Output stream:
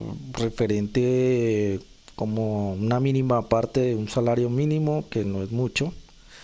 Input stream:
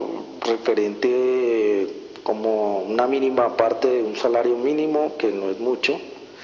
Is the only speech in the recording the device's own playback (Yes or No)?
Yes